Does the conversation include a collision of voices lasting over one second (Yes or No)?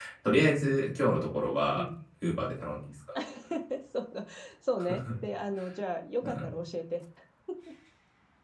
No